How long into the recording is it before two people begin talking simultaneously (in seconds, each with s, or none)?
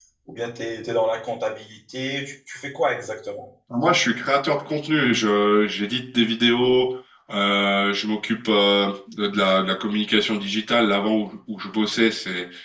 none